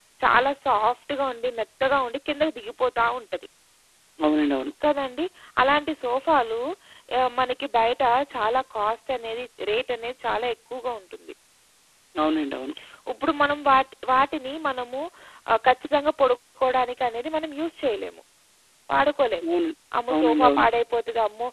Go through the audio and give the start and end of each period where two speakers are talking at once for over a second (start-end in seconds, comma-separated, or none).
none